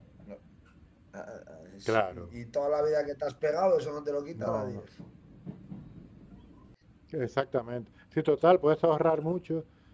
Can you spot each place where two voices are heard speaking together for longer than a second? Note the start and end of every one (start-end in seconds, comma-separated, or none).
none